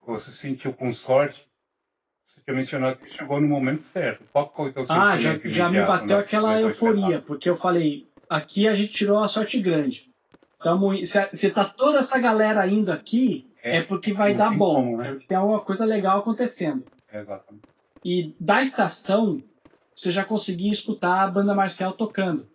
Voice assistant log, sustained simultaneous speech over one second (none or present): present